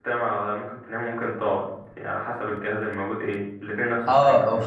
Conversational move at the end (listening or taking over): taking over